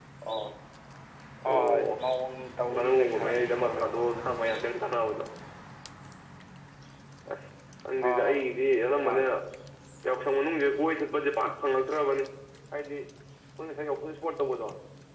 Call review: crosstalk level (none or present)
present